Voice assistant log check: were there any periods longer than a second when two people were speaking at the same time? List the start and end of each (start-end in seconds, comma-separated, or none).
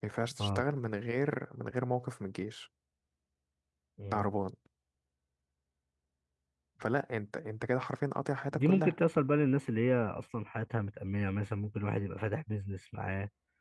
none